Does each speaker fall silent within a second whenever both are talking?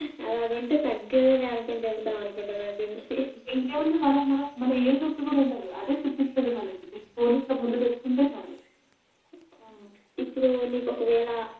Yes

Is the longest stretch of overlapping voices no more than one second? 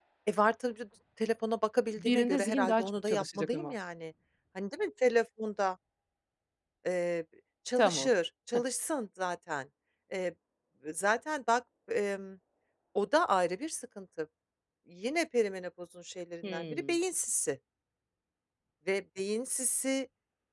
No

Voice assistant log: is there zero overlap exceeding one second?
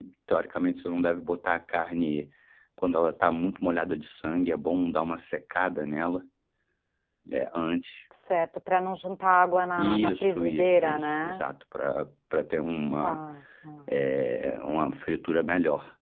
No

